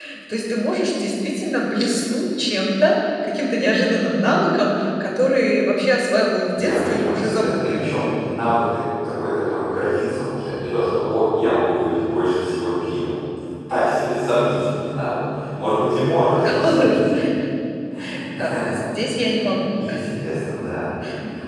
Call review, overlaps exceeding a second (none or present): present